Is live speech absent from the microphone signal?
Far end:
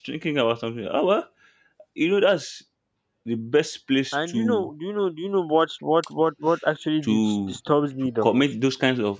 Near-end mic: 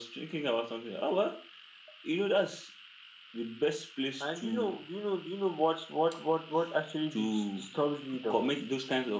Yes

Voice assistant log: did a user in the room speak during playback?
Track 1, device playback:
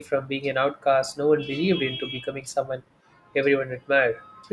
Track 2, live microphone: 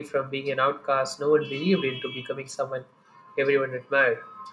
No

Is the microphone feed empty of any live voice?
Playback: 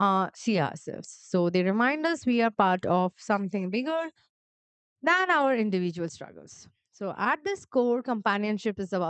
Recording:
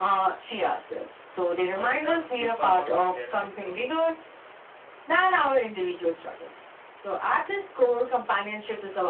No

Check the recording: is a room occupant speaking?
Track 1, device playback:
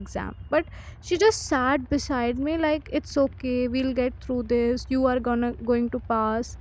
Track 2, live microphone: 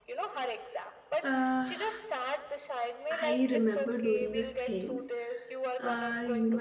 Yes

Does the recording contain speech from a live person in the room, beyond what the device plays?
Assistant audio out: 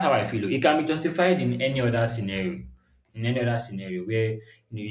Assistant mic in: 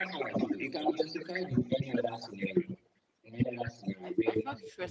Yes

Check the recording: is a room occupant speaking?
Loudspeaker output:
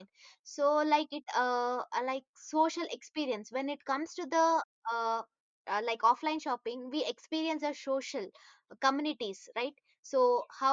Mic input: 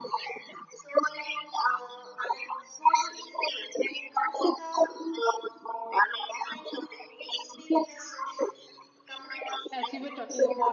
Yes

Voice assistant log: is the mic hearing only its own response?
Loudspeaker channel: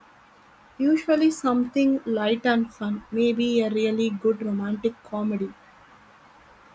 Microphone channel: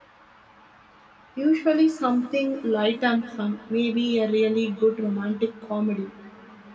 Yes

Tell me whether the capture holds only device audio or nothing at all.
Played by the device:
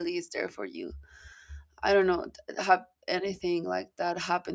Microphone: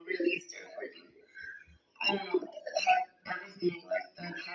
Yes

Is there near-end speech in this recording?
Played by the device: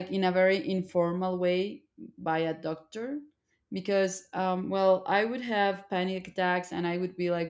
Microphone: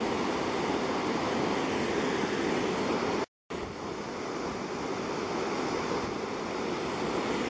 No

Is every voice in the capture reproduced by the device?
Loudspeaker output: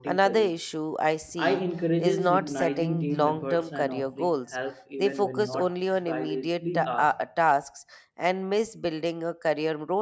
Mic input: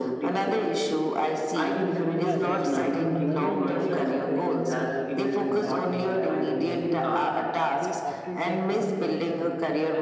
No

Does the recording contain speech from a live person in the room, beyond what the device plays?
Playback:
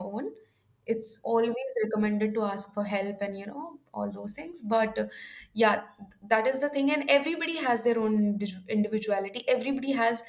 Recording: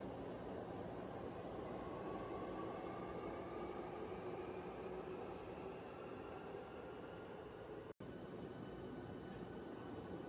No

